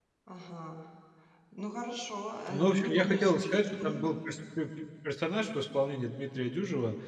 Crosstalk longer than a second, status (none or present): present